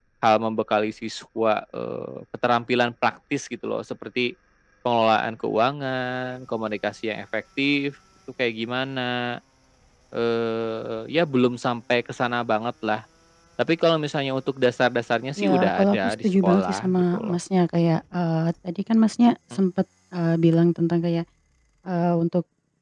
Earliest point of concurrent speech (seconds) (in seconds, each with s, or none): 15.4 s